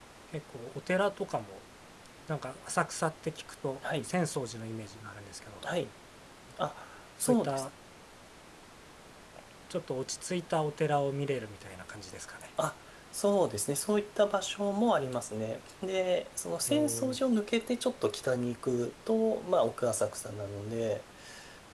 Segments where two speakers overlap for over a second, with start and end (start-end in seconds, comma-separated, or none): none